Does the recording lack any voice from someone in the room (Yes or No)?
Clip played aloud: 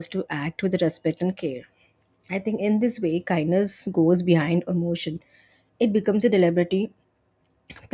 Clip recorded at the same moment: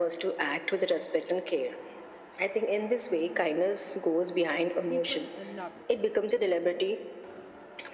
No